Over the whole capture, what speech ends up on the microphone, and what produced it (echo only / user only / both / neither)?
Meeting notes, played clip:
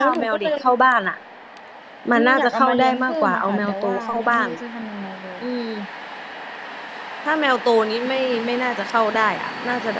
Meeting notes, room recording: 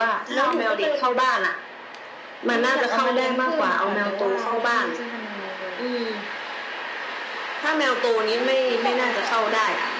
both